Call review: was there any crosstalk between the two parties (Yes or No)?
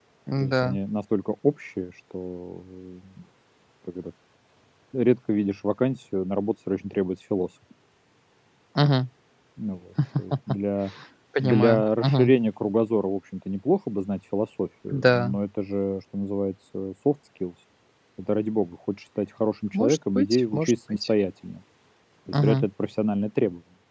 Yes